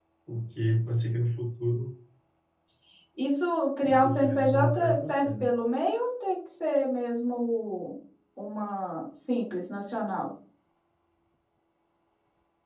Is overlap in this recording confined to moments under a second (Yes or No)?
No